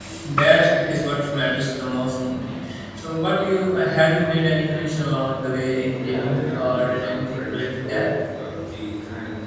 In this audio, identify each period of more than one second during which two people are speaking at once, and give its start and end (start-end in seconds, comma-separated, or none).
6.0-8.1